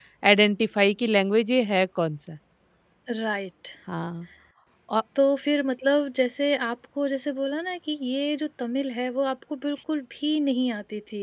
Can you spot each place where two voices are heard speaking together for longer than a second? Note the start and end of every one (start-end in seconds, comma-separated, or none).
none